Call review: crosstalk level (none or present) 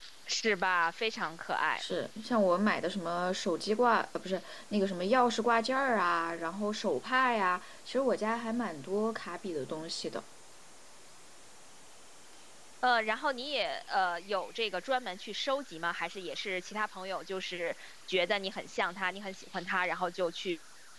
none